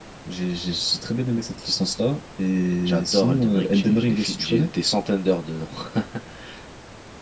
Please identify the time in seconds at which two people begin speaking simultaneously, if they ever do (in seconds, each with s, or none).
2.8 s